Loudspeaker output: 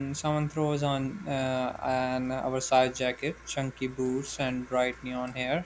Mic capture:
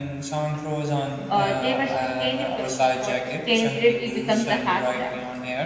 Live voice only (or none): Uh, they were sustainable before sustainability becomes a hashtag.